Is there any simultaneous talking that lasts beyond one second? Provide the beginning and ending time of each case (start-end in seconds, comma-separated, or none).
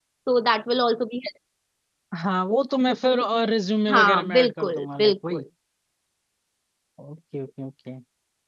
3.9-5.4